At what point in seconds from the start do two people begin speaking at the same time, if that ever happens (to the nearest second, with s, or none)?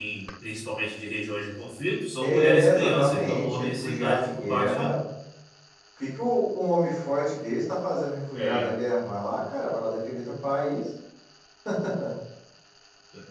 2 s